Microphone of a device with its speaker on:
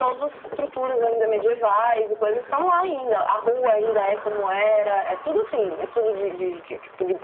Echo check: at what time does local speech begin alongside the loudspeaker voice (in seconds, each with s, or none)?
none